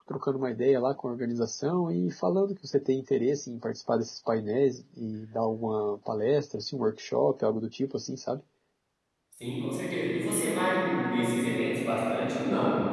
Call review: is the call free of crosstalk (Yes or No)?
Yes